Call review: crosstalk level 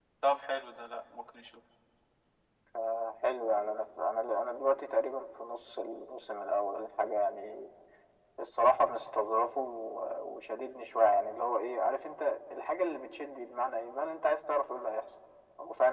none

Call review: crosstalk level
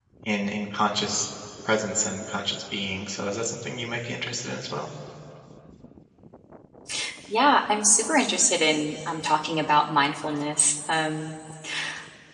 none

